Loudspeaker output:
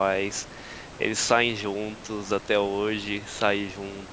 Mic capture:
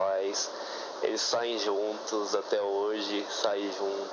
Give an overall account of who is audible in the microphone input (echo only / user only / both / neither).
echo only